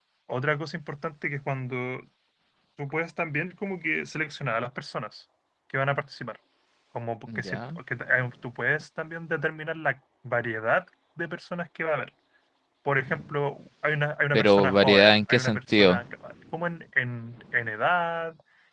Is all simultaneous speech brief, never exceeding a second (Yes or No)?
No